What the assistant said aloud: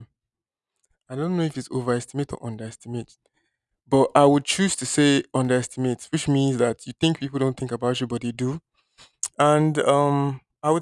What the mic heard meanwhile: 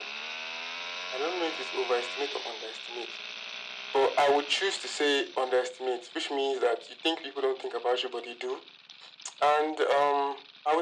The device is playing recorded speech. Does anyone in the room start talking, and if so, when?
none

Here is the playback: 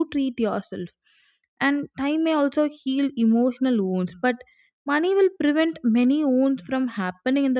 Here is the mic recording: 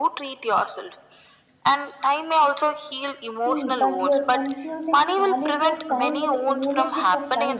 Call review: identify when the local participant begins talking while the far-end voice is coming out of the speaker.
3.2 s

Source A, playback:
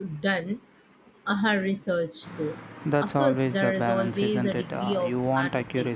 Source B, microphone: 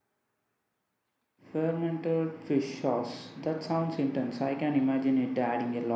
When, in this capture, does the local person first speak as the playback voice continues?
1.5 s

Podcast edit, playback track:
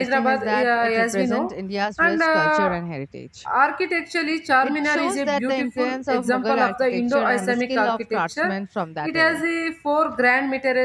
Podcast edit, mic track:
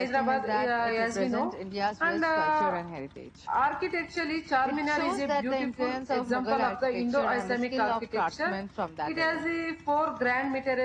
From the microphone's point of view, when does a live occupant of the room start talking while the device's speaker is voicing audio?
none

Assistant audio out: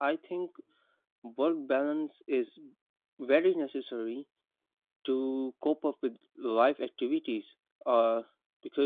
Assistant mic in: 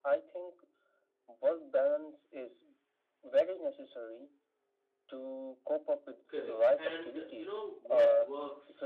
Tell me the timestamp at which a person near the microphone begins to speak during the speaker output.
6.3 s

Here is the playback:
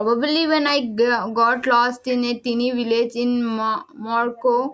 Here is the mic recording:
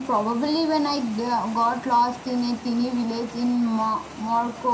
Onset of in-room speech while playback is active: none

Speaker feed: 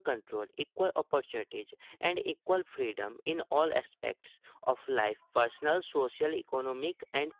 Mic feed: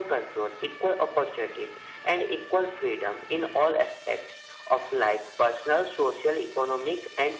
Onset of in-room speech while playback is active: none

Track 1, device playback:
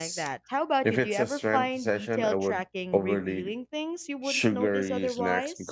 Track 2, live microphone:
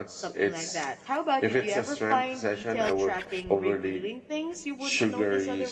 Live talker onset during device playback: none

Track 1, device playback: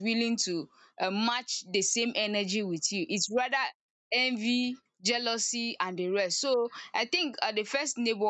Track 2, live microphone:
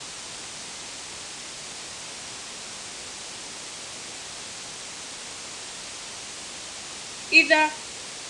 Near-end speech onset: 7.3 s

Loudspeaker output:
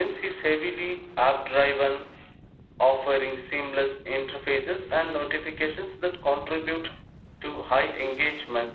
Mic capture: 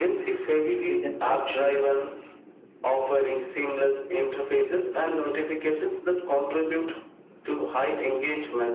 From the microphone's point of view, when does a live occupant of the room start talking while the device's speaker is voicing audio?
0.9 s

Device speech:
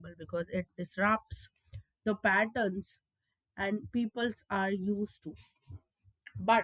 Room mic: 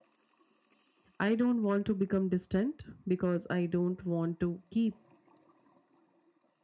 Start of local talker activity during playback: 1.2 s

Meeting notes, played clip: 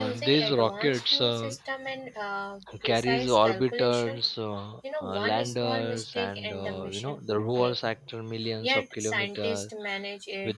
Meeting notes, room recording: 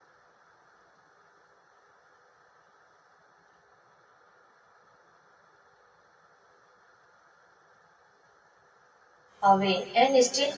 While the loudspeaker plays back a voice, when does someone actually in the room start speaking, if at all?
9.4 s

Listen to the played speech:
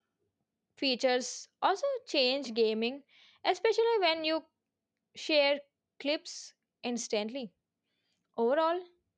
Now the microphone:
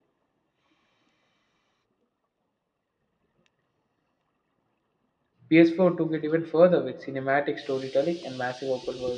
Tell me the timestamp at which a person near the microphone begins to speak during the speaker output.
5.5 s

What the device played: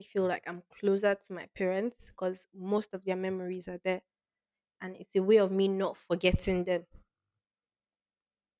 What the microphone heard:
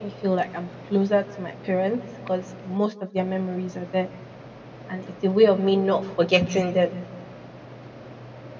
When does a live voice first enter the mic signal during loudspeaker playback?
none

